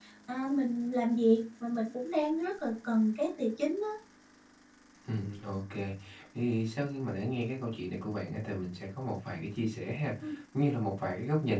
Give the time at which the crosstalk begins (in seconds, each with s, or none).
none